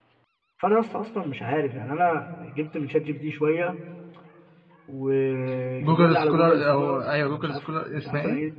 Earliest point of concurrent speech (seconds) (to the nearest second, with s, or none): 6 s